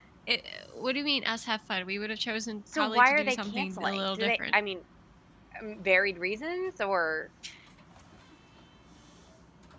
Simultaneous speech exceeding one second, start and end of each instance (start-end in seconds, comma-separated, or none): 2.7-4.5